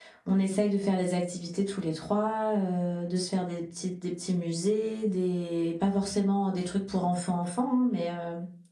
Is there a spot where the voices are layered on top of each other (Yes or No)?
No